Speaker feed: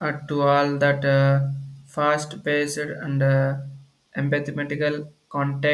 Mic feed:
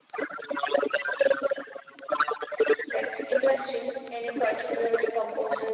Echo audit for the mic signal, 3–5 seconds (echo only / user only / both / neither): both